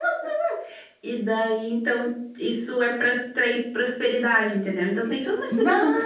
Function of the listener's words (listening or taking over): listening